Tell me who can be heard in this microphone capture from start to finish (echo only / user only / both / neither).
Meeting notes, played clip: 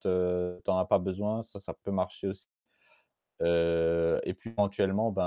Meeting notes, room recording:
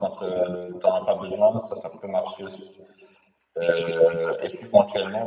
echo only